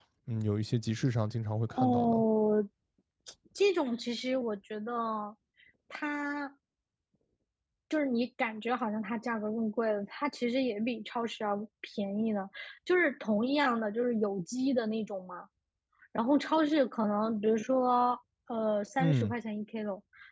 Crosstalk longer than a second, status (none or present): none